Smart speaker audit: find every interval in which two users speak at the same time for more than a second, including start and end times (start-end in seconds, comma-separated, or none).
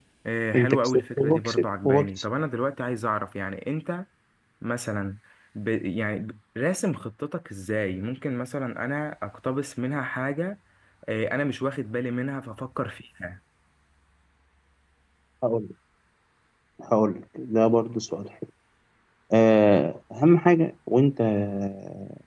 0.6-2.2